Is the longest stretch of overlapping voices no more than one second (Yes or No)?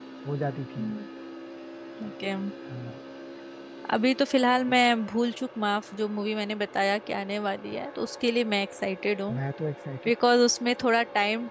Yes